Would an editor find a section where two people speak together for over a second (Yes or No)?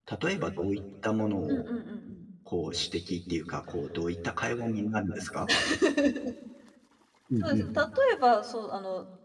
No